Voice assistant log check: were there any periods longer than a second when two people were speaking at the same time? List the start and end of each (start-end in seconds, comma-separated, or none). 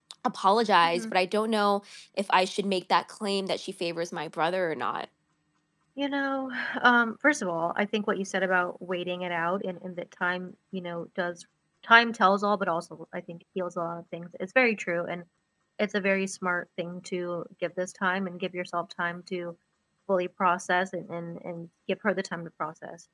none